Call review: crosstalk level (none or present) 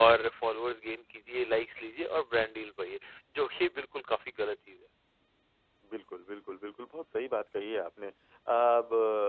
none